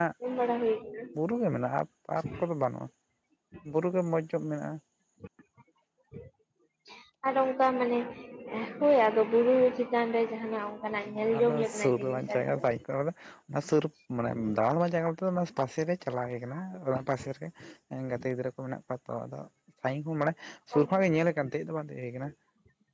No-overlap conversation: No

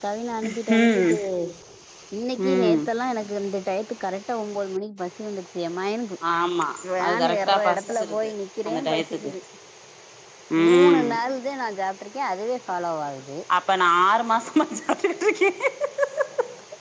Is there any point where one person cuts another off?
Yes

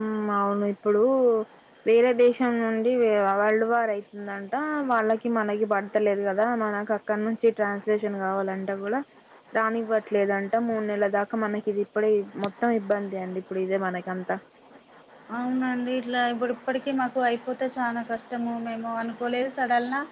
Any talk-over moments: No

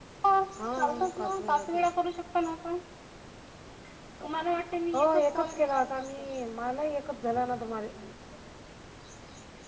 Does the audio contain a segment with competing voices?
Yes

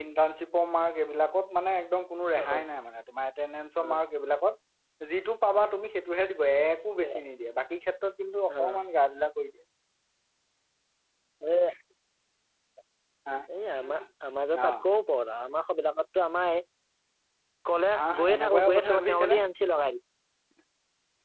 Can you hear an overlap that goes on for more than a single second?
Yes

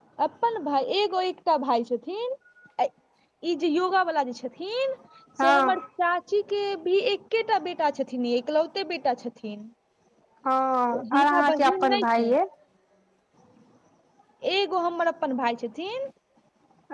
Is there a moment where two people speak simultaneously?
Yes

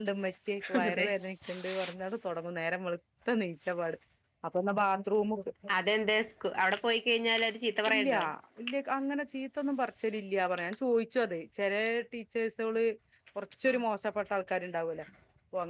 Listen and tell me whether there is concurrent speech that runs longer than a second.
No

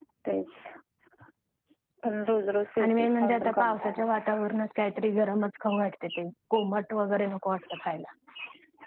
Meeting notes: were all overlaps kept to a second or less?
No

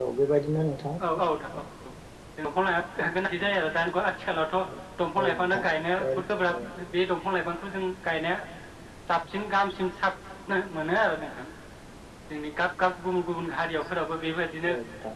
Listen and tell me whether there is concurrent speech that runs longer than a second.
No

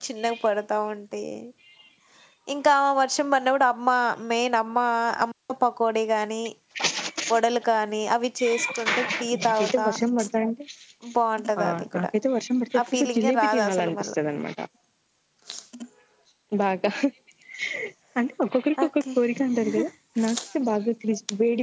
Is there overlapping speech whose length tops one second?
Yes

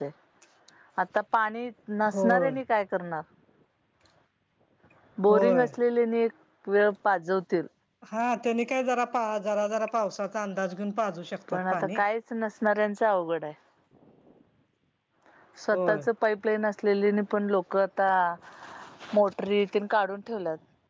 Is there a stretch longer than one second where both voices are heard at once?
No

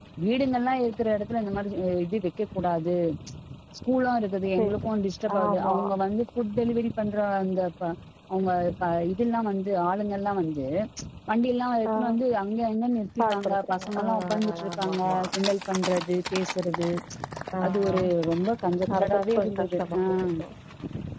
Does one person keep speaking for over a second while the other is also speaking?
Yes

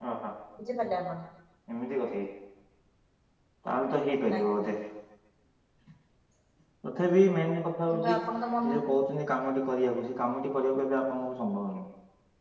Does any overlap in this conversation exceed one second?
No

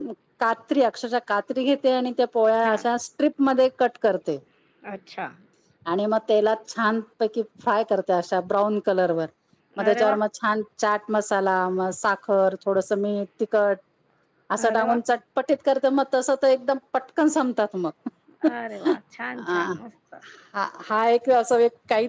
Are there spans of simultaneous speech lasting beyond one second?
No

